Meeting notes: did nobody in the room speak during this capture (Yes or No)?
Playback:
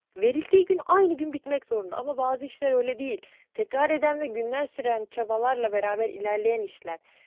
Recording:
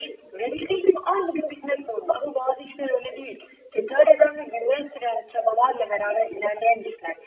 Yes